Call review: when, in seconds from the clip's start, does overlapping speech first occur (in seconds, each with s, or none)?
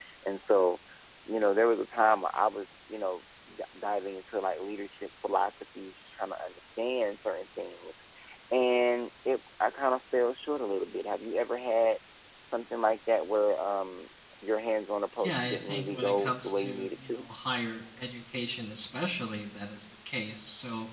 15.2 s